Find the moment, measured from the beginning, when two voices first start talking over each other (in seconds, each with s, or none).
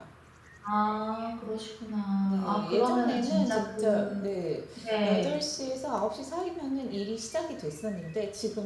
2.2 s